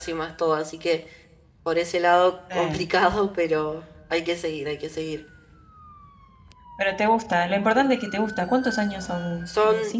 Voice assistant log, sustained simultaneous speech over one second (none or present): none